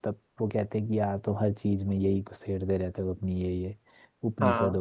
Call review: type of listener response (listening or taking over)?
listening